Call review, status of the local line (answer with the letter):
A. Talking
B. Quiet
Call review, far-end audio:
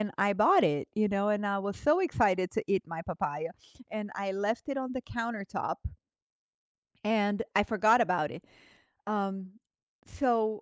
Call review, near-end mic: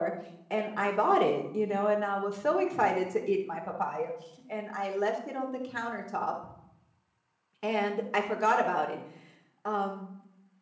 B